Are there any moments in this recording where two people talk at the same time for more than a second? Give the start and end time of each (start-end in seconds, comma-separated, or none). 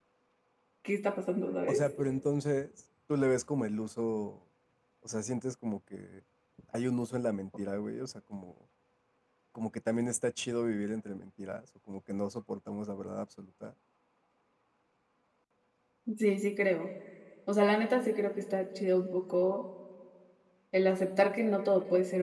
none